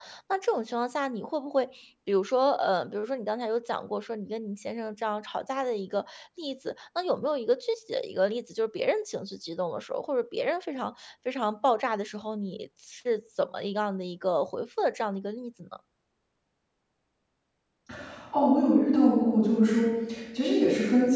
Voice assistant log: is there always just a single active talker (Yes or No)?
Yes